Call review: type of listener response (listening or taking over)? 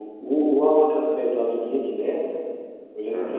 listening